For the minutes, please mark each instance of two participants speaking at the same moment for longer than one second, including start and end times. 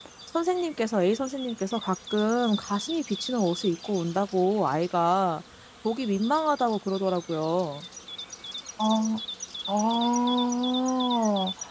none

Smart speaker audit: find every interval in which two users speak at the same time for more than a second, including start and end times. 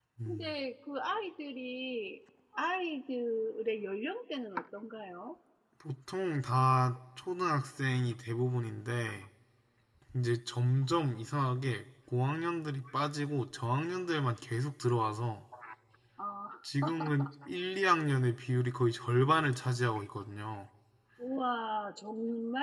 none

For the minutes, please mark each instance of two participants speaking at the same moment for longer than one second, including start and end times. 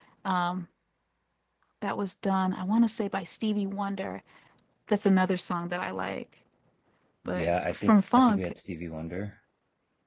7.3-8.5

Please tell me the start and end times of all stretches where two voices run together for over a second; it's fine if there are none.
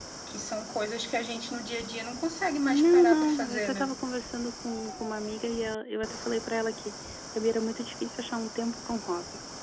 2.7-3.9

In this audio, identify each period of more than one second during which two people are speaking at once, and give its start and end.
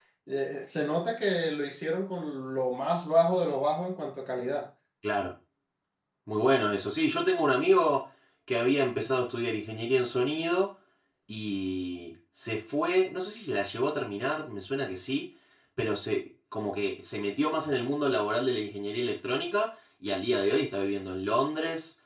none

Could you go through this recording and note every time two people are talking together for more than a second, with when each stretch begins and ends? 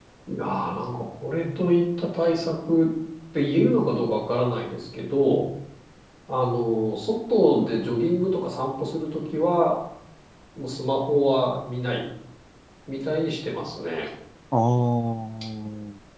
none

